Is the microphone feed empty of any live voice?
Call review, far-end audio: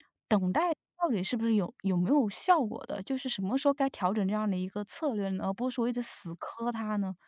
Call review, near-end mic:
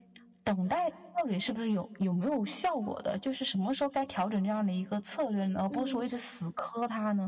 No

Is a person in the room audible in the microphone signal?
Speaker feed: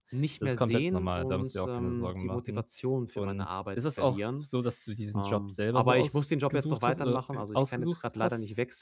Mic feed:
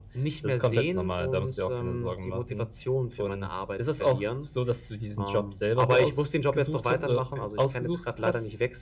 No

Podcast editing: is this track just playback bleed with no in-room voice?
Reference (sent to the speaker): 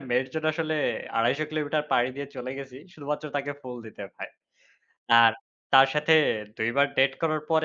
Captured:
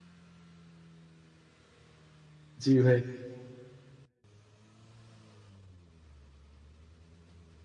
No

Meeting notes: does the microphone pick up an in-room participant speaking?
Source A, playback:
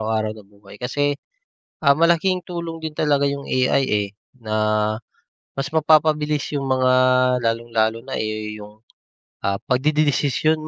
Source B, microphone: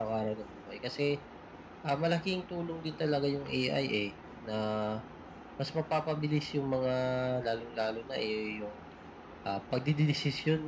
No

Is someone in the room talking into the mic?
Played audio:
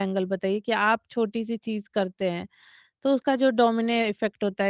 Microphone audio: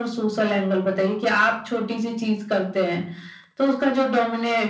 No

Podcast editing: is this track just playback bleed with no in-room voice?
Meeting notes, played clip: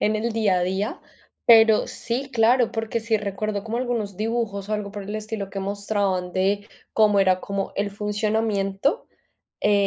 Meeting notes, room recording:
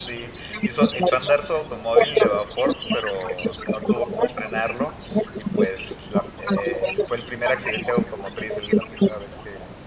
No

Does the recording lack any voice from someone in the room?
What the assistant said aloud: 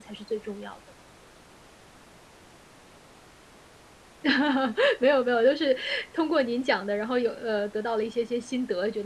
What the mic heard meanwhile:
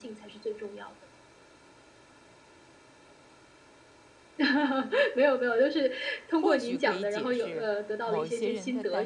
No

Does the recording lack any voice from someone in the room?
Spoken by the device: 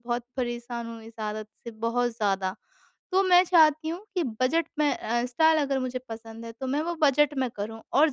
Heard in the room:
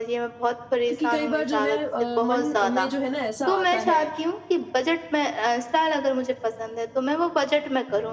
No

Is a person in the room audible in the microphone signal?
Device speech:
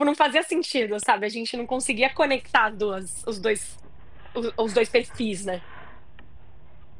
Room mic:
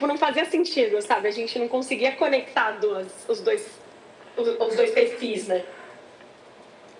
No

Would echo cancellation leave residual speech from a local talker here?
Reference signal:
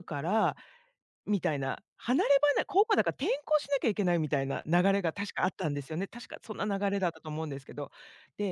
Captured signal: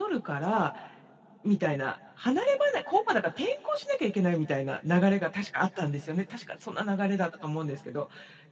No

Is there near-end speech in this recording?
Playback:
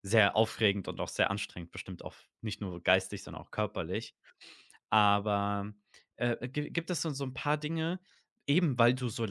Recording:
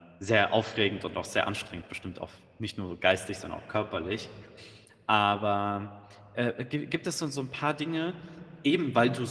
No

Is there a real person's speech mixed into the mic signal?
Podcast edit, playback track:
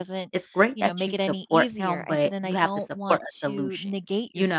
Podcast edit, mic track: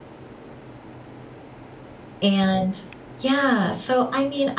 Yes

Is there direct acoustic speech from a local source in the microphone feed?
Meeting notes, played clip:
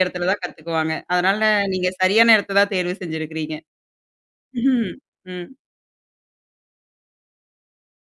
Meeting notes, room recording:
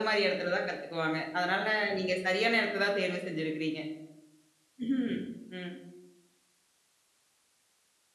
No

